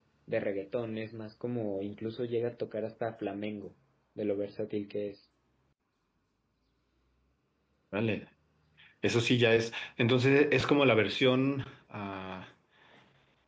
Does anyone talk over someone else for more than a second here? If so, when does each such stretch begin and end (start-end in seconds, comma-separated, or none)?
none